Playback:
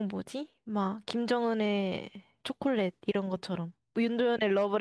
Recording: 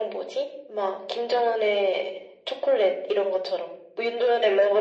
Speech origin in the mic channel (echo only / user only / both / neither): echo only